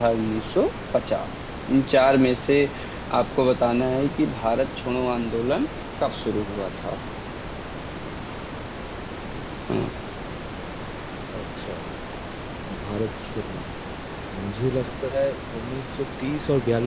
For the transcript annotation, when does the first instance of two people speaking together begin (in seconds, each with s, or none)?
none